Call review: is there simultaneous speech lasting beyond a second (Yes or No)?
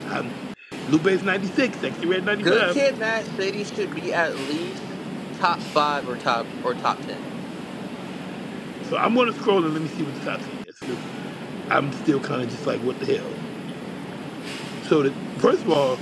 No